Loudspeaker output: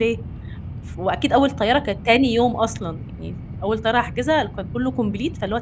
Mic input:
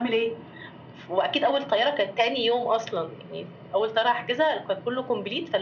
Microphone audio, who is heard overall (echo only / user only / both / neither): echo only